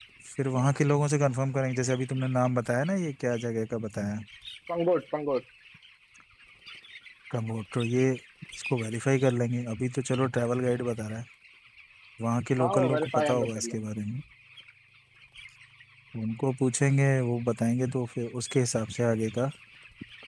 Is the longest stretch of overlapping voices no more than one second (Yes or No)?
No